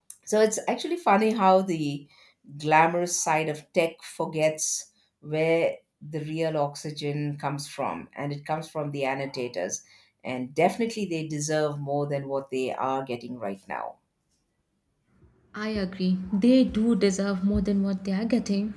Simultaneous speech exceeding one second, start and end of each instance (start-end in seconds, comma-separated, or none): none